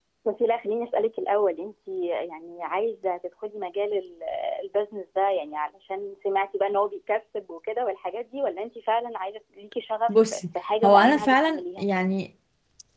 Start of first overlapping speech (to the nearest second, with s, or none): 10 s